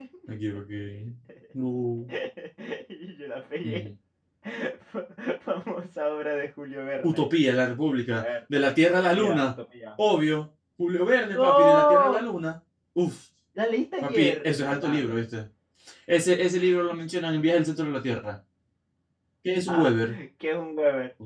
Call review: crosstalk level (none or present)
present